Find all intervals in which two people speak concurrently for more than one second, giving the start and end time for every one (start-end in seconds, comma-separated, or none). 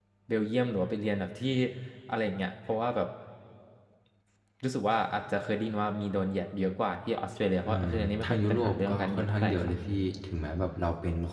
7.7-9.7